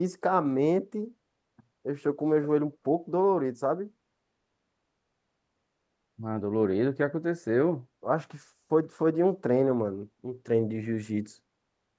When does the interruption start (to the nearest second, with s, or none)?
none